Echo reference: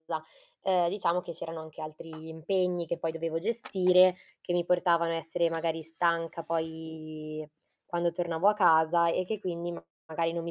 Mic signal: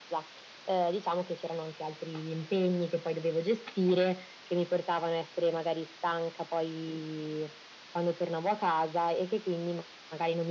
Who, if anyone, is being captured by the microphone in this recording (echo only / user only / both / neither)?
echo only